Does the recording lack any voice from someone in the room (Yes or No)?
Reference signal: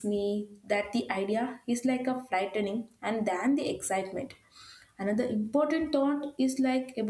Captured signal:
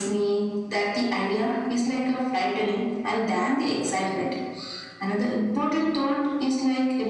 Yes